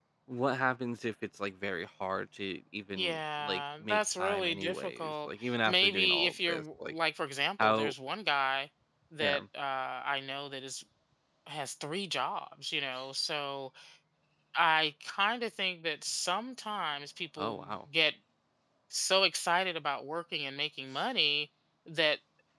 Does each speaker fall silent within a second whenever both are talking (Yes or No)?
No